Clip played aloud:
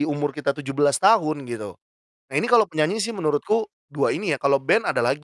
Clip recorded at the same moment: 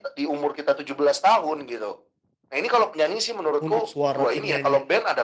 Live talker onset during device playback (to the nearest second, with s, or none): 4 s